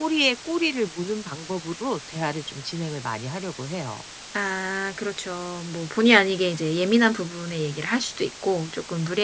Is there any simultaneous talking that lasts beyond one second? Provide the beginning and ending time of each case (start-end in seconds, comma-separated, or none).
none